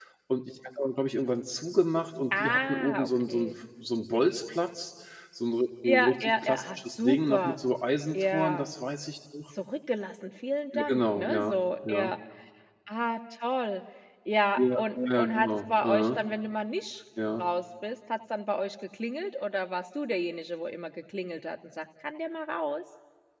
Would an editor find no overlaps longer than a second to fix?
No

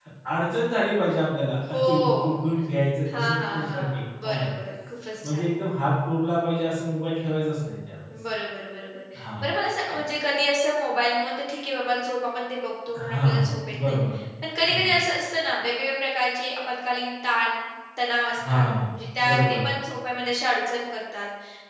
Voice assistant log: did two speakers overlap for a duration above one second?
Yes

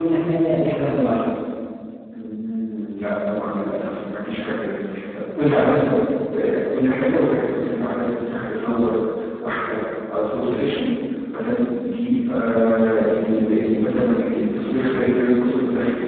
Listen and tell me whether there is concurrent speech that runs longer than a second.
No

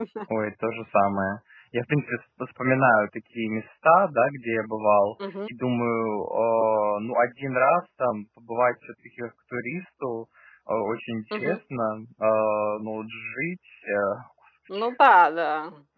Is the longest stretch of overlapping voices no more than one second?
Yes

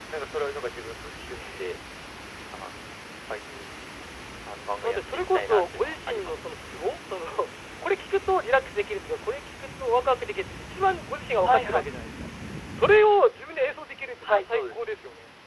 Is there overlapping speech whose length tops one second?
Yes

